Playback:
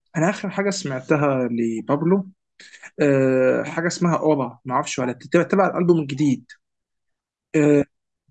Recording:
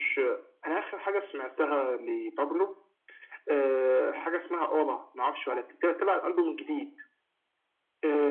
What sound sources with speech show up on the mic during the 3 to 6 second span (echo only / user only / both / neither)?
echo only